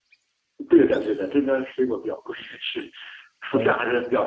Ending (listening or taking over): listening